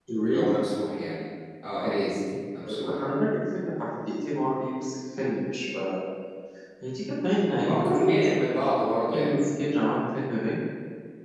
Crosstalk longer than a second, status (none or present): none